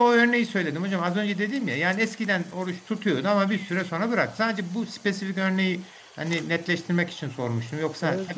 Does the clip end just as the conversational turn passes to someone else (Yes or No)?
Yes